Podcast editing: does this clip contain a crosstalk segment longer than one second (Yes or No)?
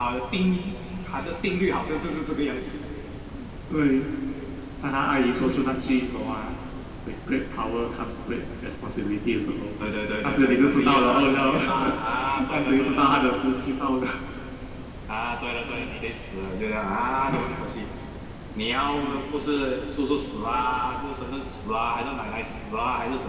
Yes